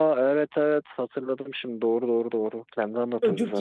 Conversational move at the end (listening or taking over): taking over